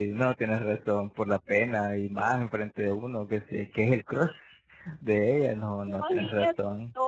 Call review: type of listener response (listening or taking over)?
taking over